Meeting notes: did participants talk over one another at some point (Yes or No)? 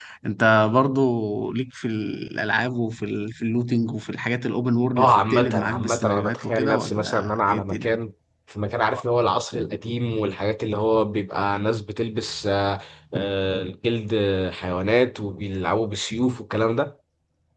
Yes